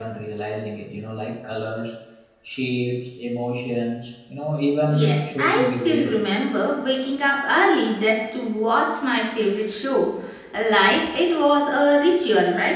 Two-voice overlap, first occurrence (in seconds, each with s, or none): 4.8 s